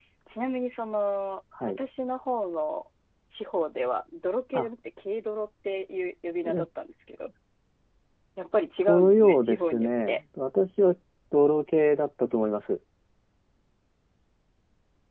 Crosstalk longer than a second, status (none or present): present